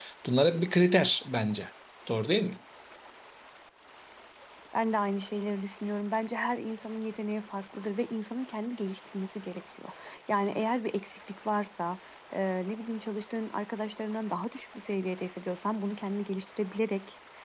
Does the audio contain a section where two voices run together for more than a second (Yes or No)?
No